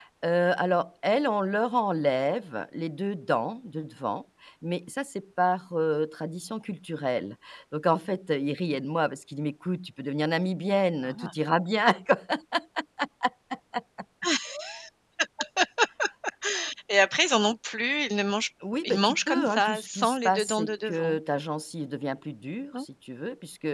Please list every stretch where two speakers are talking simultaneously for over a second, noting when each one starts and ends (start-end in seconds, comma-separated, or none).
18.8-21.2